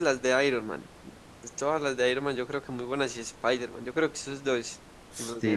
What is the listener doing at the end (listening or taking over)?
taking over